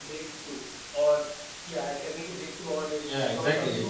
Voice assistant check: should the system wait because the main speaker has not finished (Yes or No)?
No